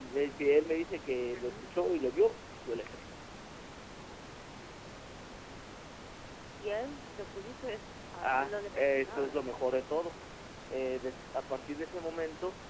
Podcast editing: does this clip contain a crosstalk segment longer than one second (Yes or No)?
Yes